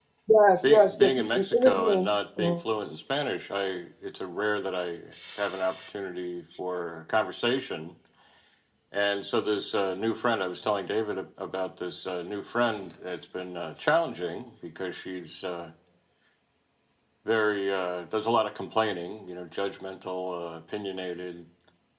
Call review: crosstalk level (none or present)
present